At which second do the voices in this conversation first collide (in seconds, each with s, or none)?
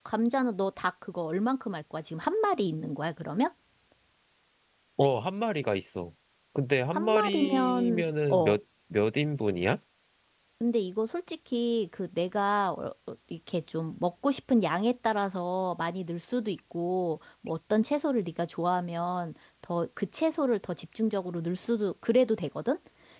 6.9 s